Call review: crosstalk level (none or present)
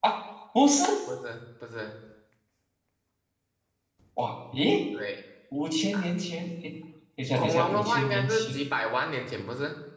present